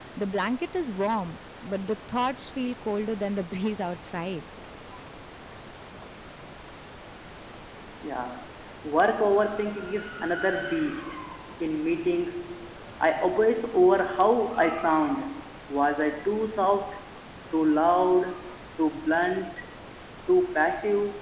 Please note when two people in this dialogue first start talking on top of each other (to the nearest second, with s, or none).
none